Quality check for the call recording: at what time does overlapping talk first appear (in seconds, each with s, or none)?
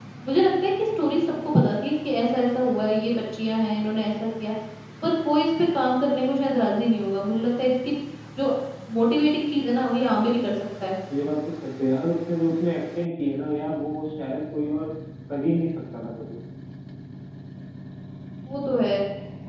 none